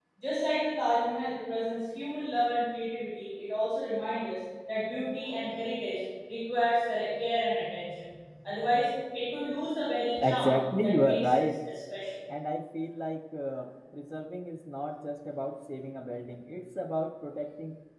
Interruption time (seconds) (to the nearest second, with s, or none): 10 s